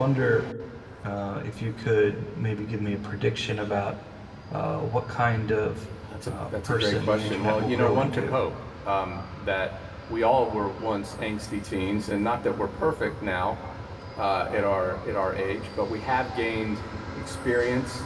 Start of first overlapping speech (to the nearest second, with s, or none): 6 s